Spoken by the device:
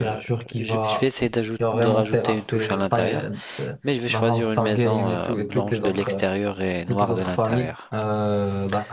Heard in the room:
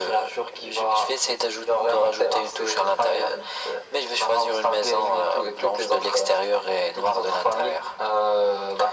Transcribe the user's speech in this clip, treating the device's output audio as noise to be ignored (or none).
none